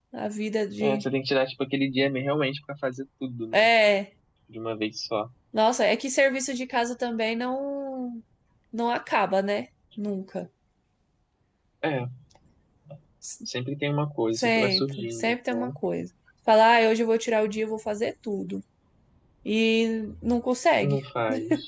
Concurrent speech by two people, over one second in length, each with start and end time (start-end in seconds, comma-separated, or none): 14.3-15.7